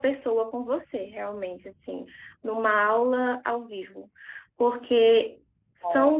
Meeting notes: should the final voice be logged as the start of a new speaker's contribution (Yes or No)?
No